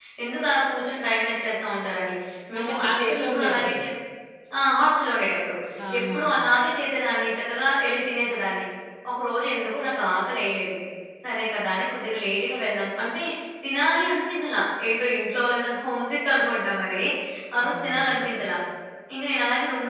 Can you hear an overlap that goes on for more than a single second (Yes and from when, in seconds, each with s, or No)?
Yes, from 2.6 s